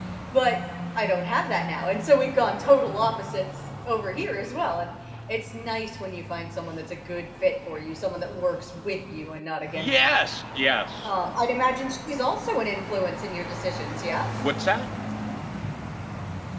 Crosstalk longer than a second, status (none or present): none